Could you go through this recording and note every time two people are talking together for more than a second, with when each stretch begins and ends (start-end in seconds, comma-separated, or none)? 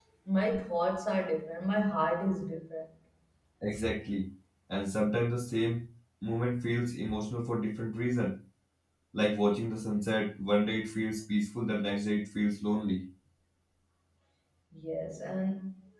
none